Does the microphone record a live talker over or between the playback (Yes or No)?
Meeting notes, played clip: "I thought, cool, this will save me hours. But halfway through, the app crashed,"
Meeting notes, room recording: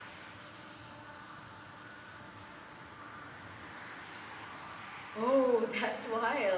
Yes